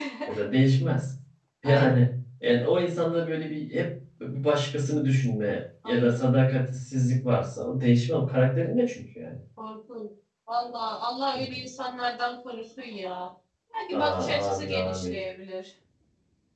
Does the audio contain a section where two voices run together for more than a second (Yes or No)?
Yes